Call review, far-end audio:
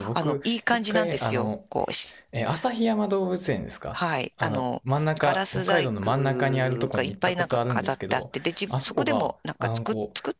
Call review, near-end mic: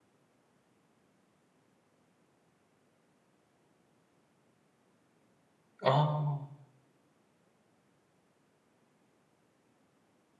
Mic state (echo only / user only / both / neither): user only